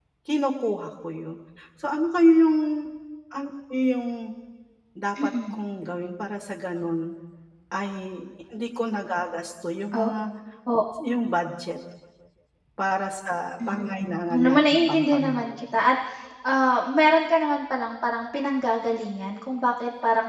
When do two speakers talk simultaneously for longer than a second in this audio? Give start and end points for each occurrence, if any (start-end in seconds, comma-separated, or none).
13.7-15.6